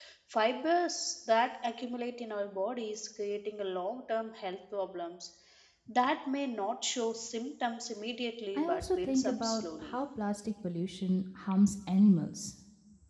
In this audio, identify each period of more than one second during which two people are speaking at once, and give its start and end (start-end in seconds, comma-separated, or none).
8.6-10.0